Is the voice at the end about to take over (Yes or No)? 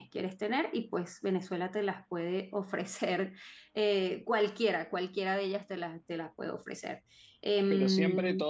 Yes